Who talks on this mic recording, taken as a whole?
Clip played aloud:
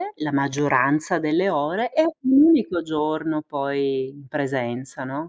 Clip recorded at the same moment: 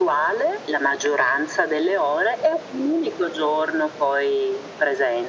echo only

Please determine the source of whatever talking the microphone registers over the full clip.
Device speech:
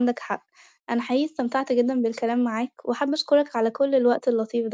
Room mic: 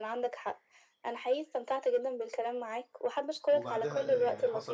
both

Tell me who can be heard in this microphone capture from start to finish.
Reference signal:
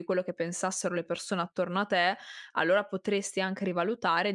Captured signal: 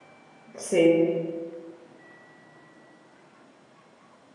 user only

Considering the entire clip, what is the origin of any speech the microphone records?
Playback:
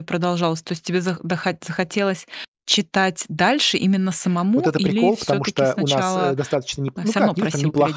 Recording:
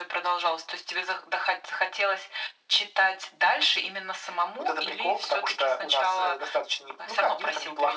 echo only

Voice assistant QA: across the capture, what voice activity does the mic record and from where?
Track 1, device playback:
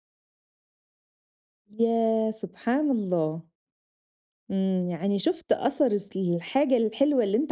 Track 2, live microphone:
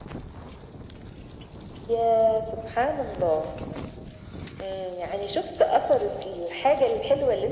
echo only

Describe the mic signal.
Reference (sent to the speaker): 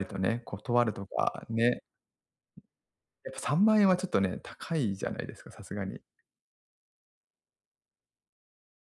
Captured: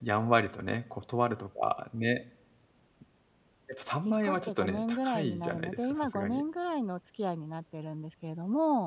both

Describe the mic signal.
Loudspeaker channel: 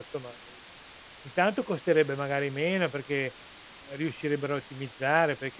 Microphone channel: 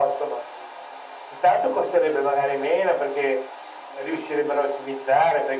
echo only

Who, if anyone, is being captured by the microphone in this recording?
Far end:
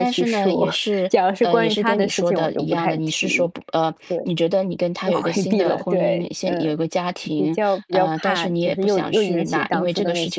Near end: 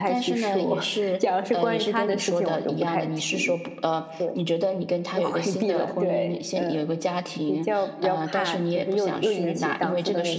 echo only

